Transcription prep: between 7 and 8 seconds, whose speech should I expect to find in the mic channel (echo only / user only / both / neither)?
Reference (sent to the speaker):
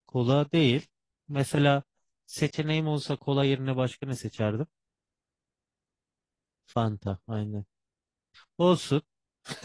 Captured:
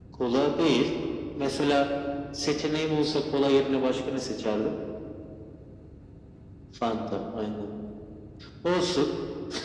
echo only